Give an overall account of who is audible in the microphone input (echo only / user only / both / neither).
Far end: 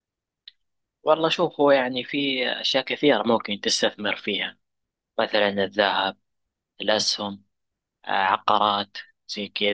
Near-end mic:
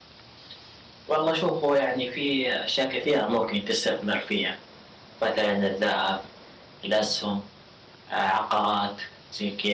echo only